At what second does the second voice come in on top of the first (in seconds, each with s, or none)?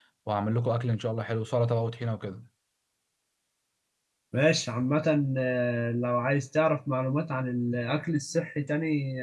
none